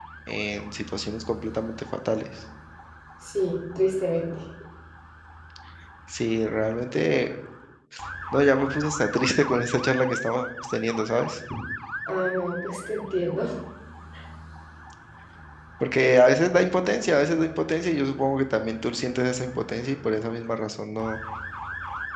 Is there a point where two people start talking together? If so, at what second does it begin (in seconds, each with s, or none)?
none